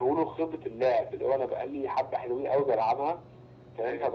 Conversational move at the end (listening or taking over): listening